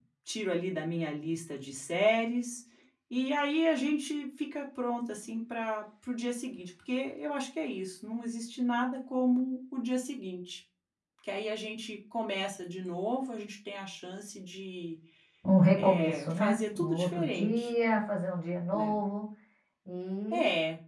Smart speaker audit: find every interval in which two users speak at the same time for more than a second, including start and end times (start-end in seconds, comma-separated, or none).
15.8-17.7